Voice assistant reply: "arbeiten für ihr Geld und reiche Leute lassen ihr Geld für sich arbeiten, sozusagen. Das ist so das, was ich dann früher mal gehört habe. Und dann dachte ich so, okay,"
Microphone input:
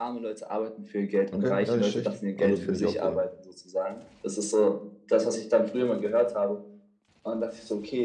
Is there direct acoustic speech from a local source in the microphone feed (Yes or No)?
Yes